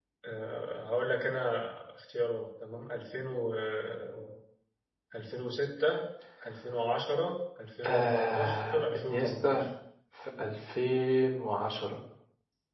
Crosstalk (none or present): present